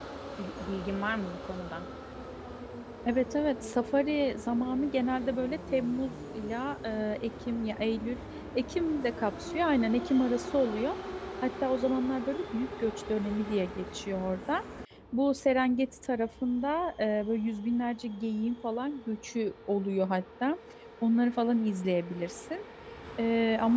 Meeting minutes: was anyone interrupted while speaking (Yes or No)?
No